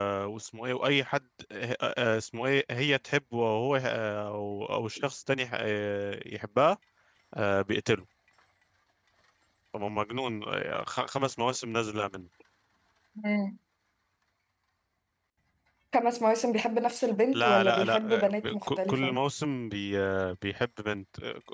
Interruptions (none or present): present